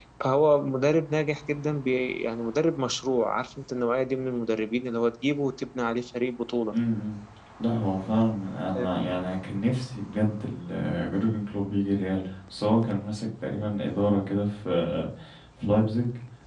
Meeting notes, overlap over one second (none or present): none